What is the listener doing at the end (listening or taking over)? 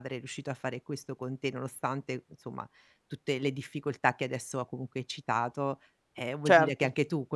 listening